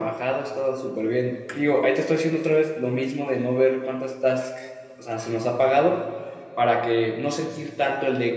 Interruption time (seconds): none

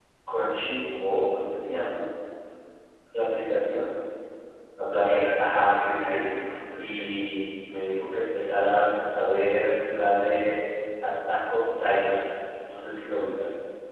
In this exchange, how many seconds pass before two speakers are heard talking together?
5.0 s

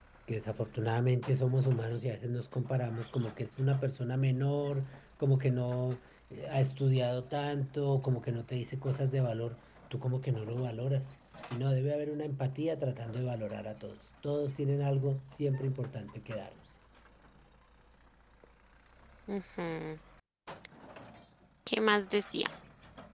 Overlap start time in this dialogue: none

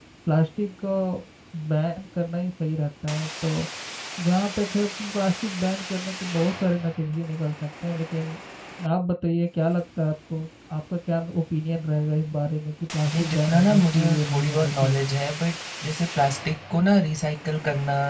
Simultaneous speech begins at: 13.1 s

